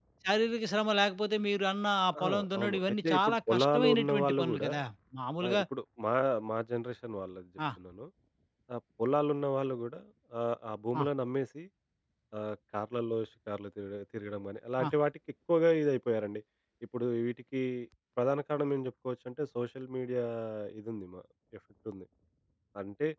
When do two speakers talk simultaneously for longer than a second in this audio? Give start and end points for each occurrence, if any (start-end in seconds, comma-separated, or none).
2.2-4.7